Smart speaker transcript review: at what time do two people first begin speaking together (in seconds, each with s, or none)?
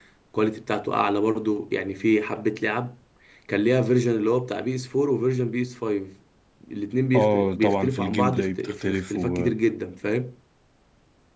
7.2 s